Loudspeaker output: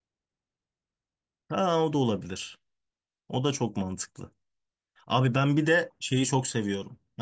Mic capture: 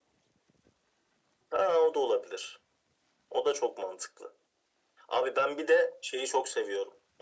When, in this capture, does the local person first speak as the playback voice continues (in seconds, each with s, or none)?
none